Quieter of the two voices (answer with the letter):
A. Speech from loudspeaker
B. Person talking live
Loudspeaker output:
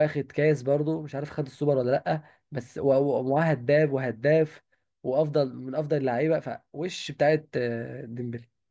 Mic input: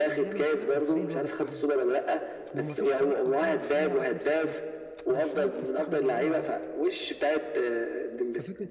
B